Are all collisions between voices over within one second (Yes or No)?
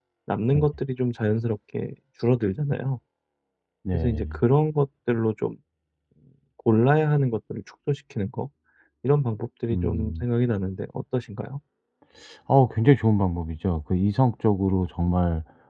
Yes